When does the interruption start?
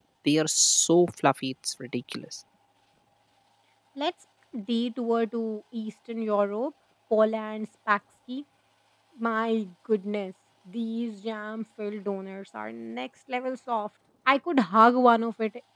none

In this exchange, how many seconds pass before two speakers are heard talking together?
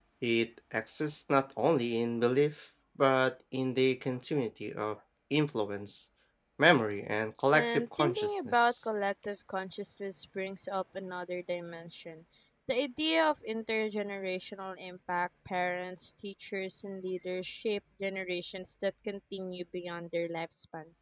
7.5 s

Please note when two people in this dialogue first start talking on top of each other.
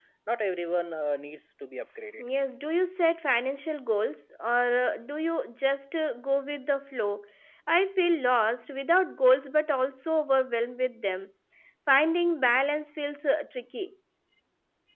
none

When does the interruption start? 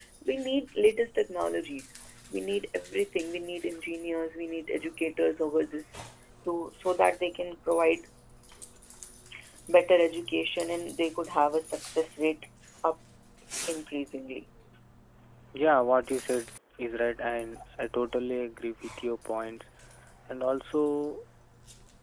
none

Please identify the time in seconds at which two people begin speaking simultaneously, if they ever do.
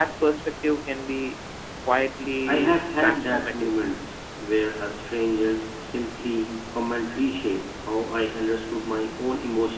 2.5 s

